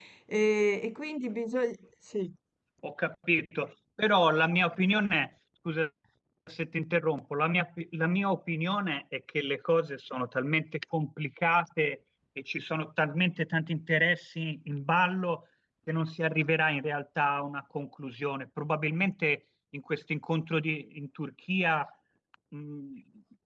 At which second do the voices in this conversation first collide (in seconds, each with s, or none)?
none